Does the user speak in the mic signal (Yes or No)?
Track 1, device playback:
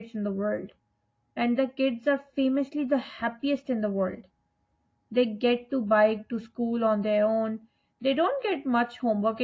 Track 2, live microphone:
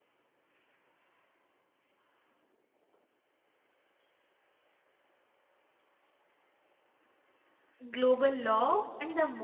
Yes